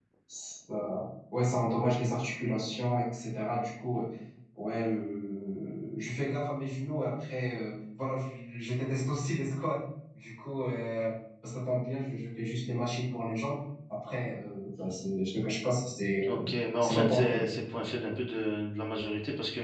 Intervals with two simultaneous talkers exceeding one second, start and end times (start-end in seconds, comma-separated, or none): 16.3-17.5